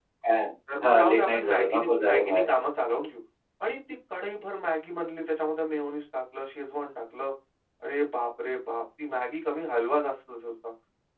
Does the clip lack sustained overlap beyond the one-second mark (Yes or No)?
No